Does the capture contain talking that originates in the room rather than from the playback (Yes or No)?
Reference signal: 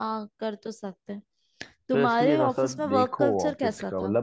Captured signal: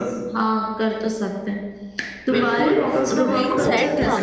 Yes